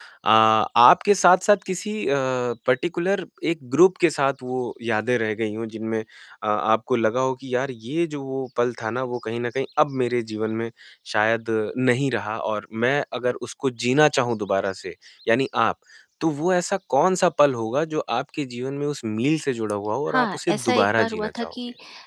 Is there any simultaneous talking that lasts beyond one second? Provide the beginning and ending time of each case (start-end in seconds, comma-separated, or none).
20.1-21.5